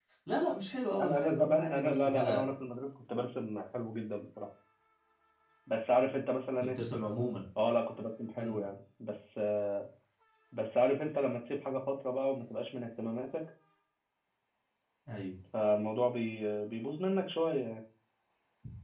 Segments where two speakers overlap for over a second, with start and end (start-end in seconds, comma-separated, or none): 1.0-2.5